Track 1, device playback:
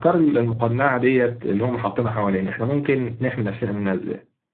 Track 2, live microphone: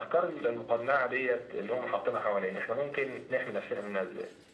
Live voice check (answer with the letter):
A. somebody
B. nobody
B